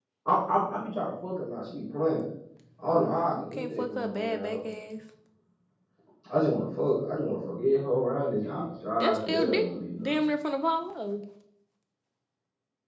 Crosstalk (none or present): present